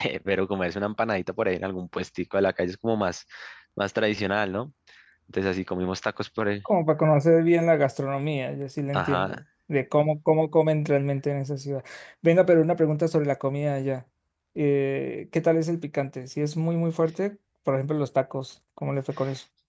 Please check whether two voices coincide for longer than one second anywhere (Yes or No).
No